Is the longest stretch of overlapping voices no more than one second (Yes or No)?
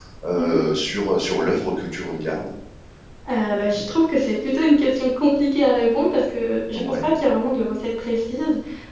Yes